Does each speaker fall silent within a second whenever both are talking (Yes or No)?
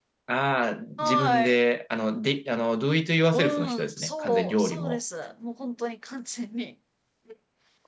No